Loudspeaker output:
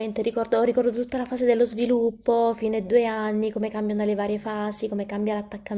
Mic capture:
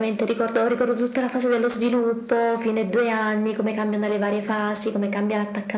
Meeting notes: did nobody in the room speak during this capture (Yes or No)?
Yes